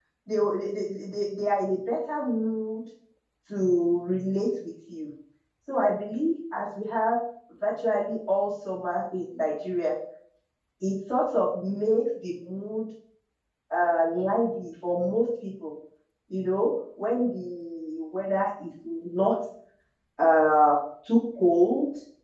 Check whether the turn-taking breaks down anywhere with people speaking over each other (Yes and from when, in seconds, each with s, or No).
No